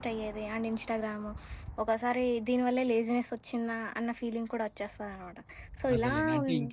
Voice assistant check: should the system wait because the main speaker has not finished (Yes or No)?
No